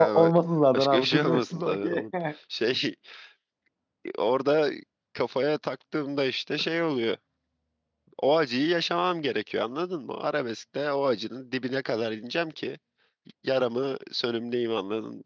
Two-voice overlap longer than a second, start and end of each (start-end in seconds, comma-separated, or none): 0.7-2.0